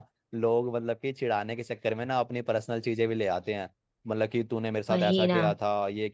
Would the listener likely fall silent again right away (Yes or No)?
Yes